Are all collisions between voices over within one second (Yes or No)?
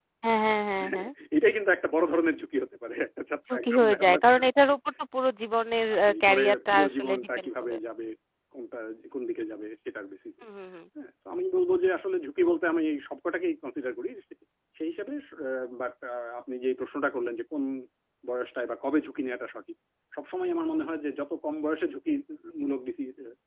No